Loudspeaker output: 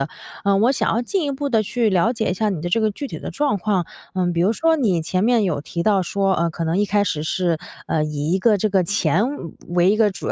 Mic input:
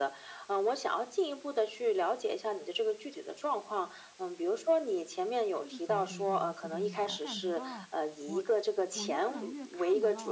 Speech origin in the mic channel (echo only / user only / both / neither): both